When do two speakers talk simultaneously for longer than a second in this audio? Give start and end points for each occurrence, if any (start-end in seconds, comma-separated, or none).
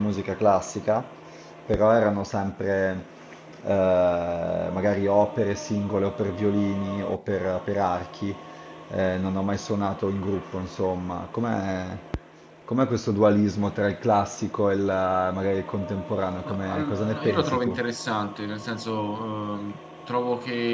16.4-17.8